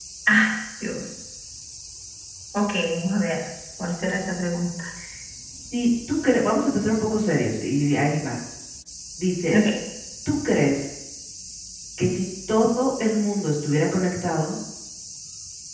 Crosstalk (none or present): none